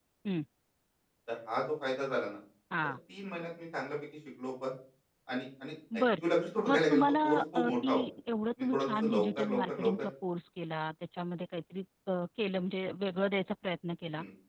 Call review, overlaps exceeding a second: present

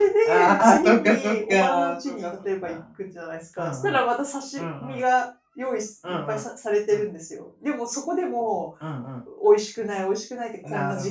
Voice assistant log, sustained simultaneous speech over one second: present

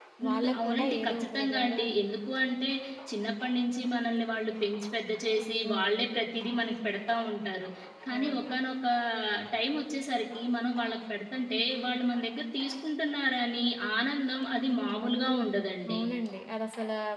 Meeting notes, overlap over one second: present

